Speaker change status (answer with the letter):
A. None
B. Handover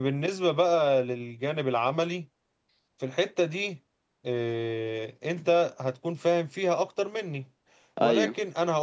A